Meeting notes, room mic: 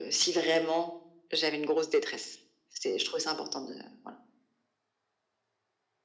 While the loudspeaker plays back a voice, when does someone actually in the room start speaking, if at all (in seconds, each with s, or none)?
none